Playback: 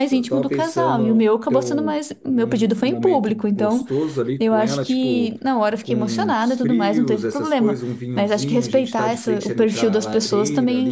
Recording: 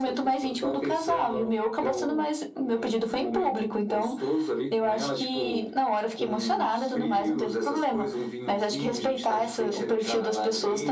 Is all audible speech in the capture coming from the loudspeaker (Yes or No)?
Yes